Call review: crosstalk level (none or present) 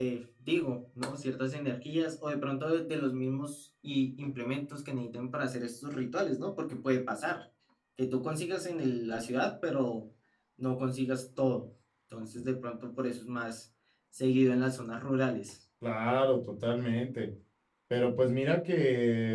none